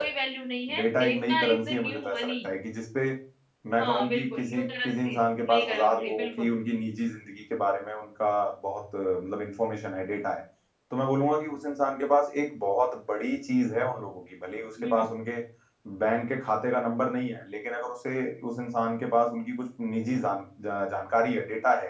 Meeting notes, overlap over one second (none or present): present